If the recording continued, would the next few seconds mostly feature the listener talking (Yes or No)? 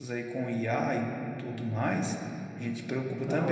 No